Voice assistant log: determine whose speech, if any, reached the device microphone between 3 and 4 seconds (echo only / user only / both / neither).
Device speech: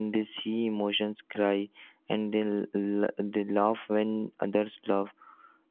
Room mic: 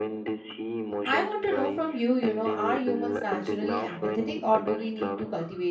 both